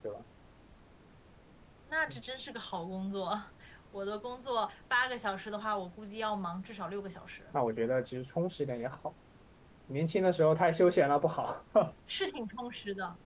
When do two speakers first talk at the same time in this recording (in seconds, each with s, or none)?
none